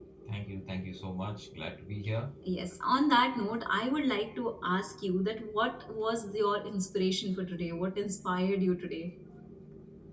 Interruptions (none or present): none